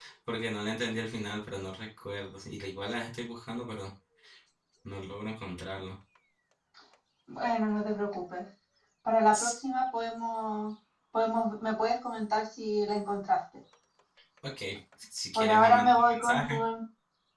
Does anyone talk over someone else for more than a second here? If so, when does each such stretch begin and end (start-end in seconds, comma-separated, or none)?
15.3-16.6